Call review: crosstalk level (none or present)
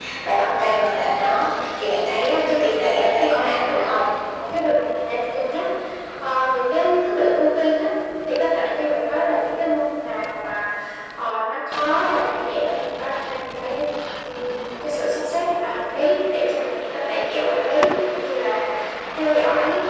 present